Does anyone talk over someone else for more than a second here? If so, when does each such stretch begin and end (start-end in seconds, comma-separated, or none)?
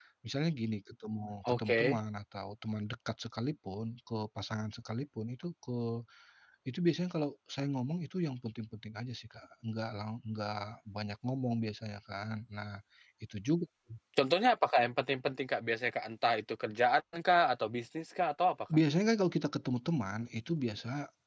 none